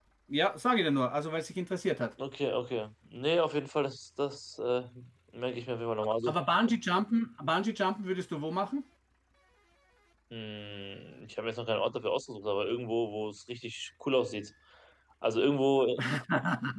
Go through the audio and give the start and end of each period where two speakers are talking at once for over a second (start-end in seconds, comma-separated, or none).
none